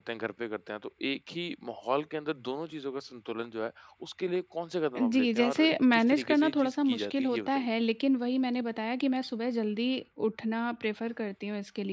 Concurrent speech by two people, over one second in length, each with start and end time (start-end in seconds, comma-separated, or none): 5.0-7.6